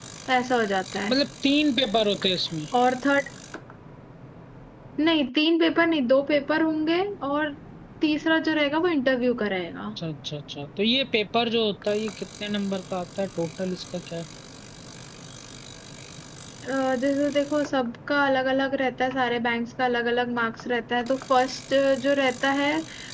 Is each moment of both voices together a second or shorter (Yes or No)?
Yes